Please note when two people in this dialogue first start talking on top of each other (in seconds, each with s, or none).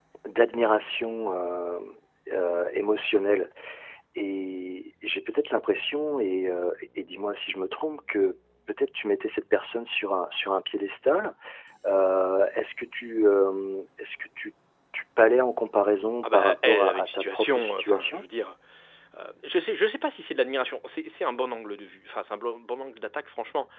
16.2 s